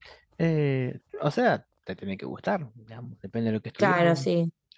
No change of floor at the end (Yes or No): No